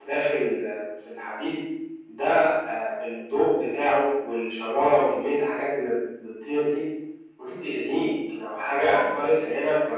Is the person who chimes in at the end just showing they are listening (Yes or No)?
Yes